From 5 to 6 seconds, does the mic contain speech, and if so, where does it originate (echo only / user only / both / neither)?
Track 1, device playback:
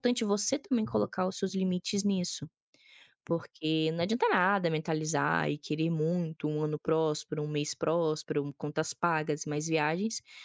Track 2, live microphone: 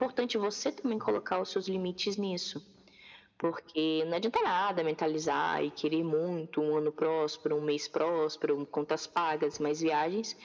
echo only